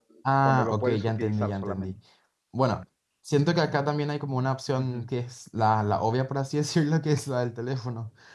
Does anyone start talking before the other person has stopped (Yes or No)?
Yes